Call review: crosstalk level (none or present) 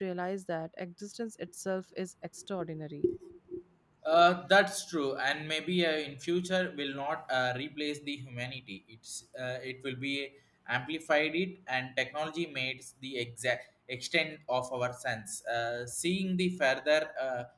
none